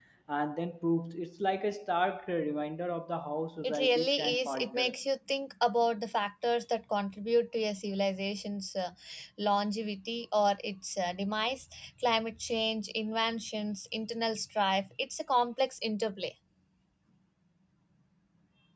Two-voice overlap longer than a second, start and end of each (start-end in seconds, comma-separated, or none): 3.6-5.0